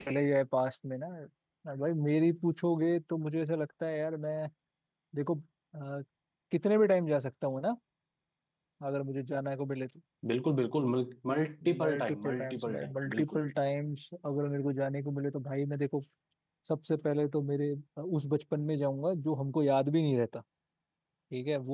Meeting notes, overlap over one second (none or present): present